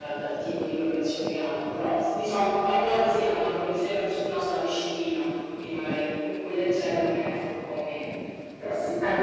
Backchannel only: No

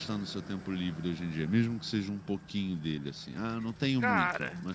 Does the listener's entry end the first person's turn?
Yes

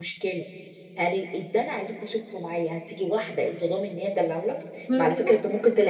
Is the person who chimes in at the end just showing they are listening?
Yes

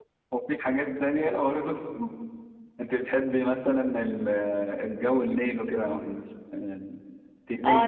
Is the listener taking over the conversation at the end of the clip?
Yes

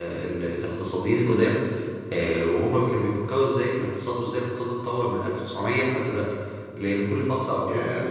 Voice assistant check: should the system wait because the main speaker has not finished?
Yes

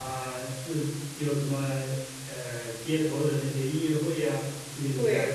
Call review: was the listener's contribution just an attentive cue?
No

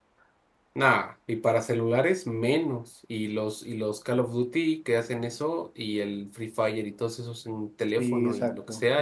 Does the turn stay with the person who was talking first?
No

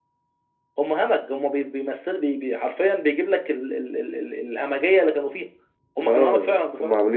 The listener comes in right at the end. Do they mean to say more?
Yes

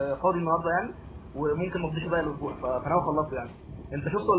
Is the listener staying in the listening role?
No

